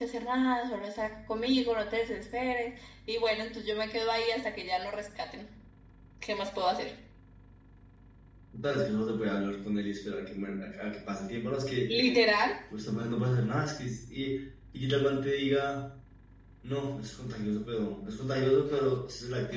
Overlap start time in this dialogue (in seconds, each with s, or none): none